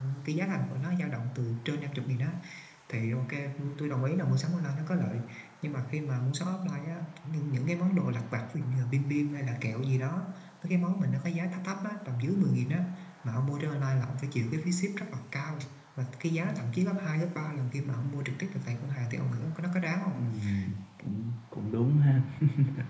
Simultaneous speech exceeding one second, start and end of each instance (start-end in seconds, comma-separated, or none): none